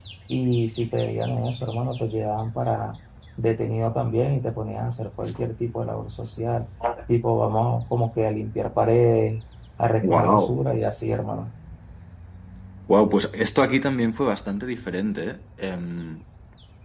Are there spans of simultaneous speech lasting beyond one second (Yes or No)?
No